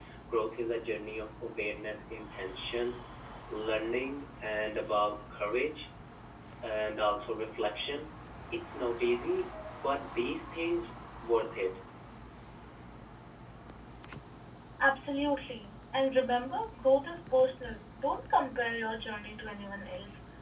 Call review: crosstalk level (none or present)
none